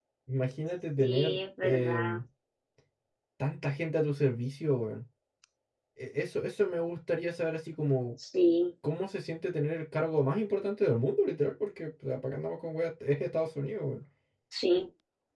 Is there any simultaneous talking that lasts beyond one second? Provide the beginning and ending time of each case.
1.0-2.2

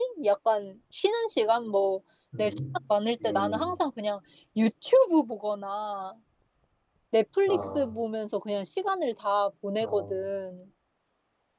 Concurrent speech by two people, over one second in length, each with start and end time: none

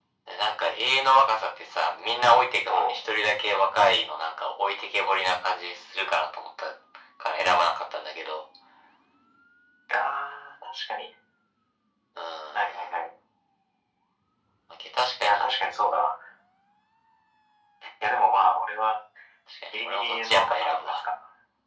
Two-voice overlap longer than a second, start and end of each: 19.7-21.0

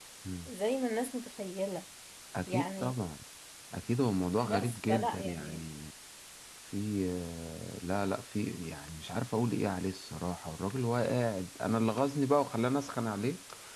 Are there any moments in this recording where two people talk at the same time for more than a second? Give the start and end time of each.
4.4-5.7

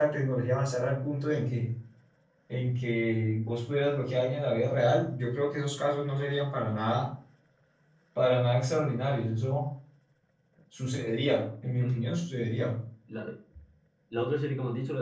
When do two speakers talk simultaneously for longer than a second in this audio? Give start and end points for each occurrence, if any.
none

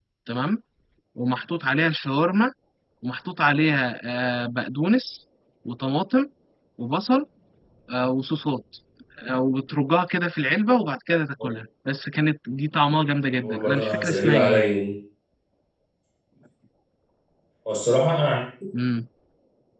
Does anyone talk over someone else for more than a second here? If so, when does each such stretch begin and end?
13.4-14.6

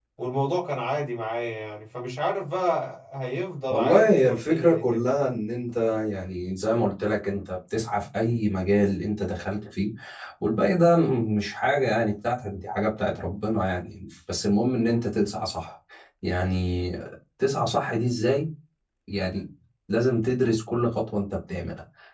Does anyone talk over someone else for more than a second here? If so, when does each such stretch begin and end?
3.7-5.2

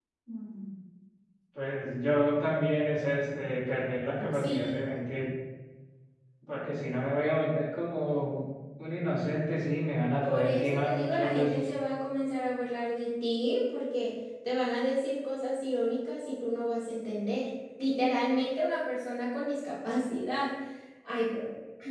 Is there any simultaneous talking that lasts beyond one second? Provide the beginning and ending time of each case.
10.2-11.7

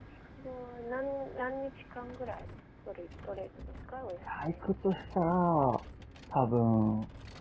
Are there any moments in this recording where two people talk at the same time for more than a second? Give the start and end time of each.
none

